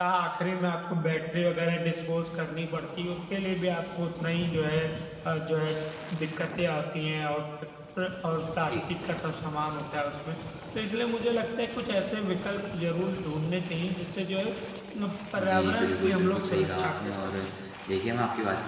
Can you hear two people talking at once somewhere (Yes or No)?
Yes